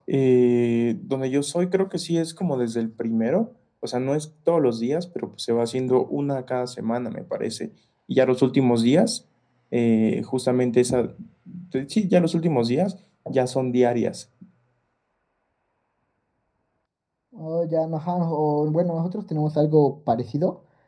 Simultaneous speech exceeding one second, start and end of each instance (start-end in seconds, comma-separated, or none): none